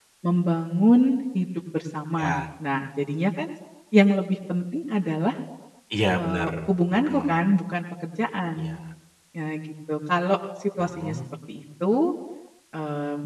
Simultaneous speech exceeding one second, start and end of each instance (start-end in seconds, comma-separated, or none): none